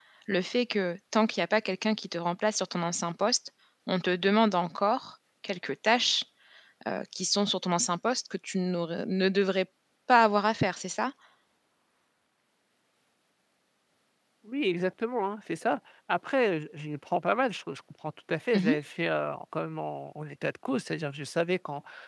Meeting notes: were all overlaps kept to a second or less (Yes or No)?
Yes